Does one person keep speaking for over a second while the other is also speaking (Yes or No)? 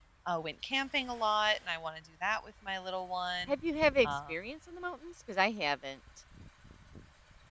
No